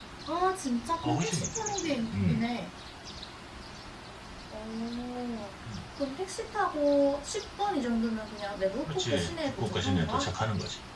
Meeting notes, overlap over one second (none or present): present